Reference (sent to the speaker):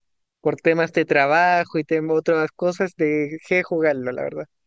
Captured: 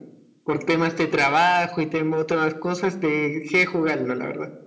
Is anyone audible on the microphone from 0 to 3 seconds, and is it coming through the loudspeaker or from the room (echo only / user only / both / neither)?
echo only